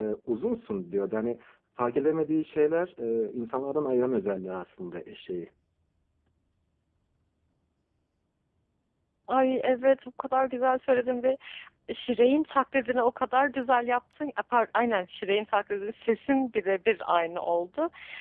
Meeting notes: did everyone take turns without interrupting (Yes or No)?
Yes